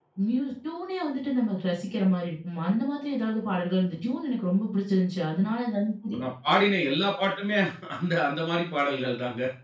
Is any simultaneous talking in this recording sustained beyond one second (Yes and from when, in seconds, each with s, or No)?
No